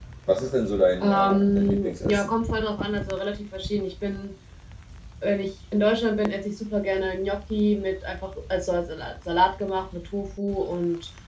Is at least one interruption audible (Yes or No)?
Yes